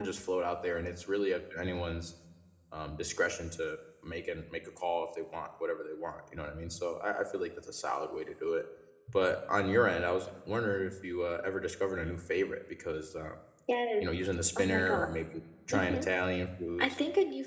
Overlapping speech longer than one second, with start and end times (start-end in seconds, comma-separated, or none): none